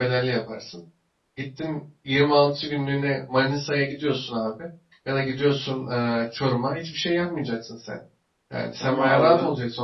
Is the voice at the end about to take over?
No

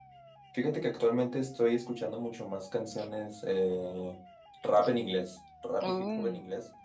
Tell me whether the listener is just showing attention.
Yes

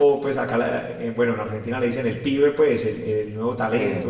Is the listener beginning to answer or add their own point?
No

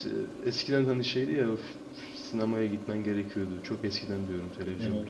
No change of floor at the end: Yes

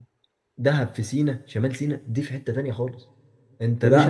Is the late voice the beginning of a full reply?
Yes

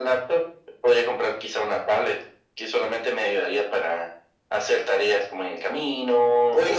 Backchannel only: No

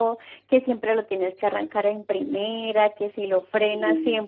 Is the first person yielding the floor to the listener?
No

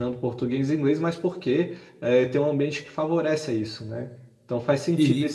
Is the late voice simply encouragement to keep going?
Yes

